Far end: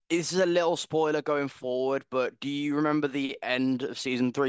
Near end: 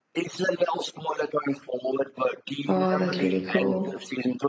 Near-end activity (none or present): present